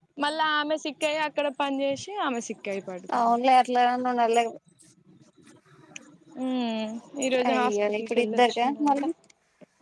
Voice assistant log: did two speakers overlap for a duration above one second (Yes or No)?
Yes